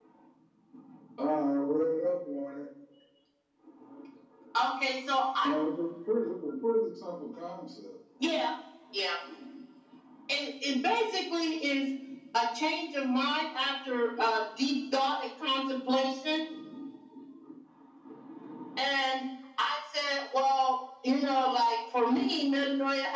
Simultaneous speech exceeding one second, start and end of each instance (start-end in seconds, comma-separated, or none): none